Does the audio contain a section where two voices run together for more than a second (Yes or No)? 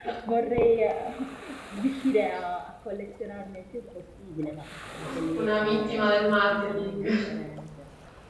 Yes